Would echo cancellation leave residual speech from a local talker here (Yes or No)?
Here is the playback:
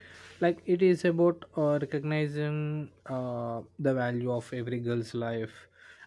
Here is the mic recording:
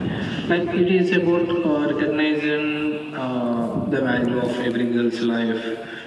No